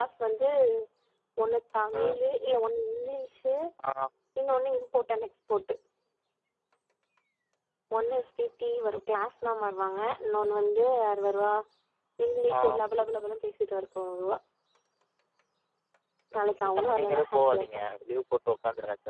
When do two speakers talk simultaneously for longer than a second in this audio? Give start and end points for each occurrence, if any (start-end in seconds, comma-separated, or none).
16.4-17.7